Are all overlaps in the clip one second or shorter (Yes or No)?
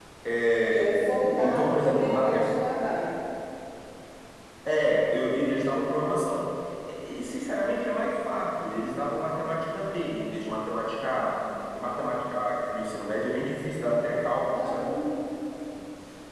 No